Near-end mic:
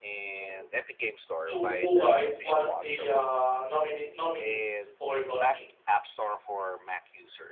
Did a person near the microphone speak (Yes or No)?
Yes